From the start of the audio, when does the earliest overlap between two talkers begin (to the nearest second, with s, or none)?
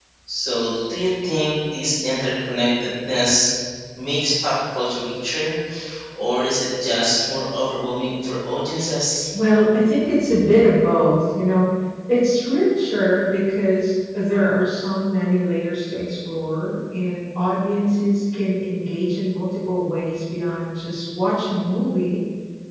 none